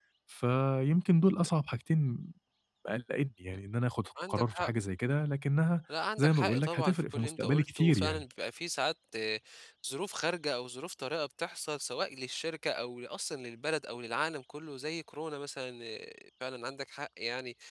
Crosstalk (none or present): present